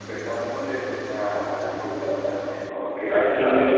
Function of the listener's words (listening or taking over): taking over